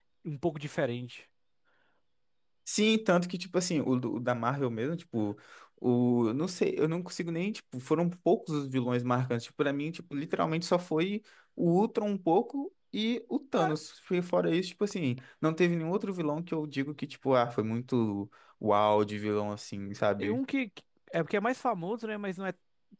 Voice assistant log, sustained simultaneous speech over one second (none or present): none